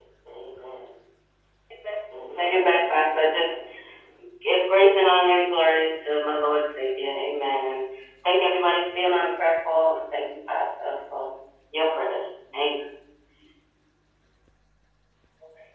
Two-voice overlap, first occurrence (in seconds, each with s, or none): 2.3 s